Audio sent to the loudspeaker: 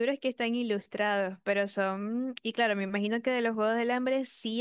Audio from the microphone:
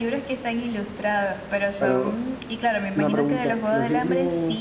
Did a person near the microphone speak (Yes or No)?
Yes